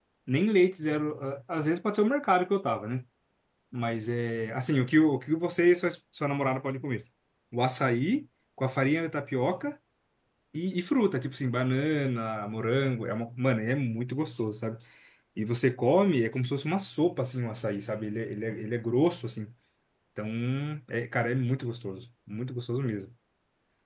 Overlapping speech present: No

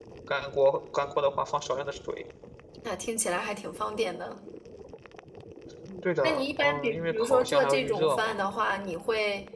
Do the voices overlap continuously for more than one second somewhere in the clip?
Yes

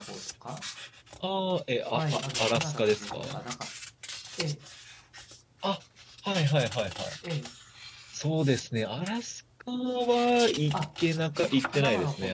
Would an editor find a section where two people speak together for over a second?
Yes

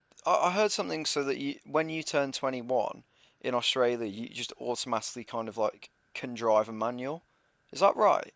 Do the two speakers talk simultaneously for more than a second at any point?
No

